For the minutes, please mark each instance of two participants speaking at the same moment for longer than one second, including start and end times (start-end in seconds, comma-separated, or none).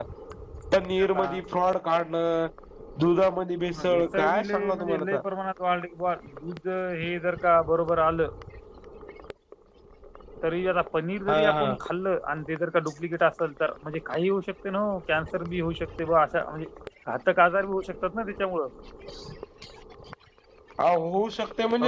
3.9-5.2